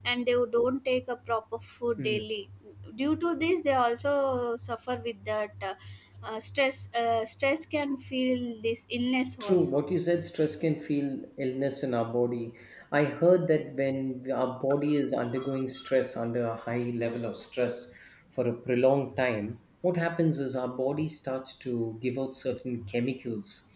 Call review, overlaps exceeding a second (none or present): none